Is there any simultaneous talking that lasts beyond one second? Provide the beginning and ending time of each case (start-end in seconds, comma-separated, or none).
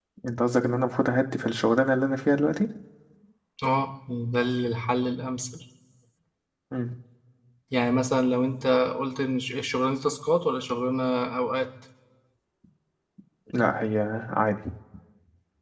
none